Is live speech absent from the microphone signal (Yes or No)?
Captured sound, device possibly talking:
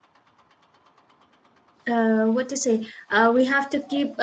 No